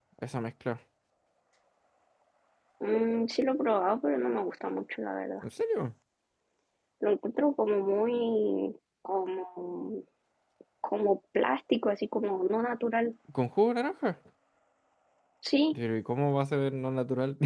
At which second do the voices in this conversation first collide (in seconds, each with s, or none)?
none